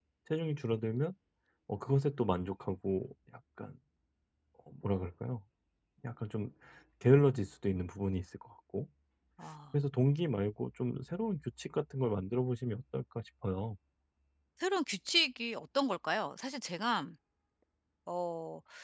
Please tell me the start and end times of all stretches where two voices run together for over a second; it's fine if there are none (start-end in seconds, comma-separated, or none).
none